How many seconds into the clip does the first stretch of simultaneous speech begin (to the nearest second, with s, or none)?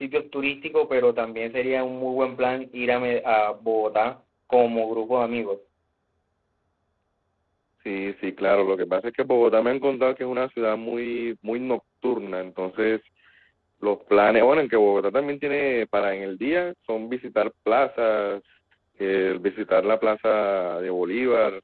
none